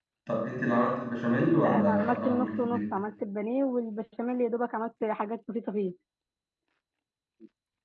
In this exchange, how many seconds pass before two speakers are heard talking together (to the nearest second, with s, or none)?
2 s